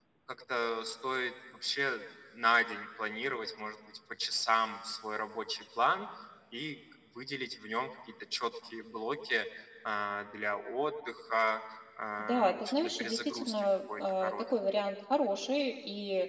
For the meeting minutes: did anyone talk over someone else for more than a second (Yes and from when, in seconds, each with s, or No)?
Yes, from 12.2 s